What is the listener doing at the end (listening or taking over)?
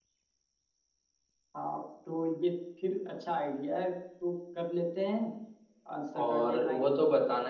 taking over